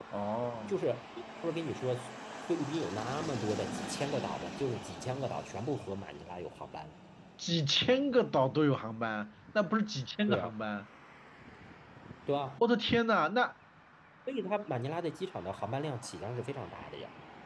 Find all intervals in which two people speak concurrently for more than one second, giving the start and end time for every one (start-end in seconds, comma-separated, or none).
none